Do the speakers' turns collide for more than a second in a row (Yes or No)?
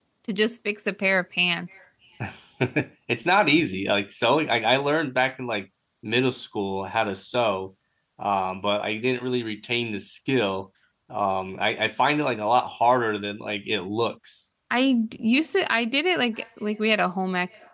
No